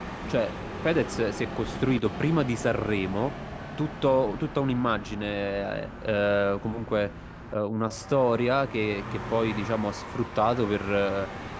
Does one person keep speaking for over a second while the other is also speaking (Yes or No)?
No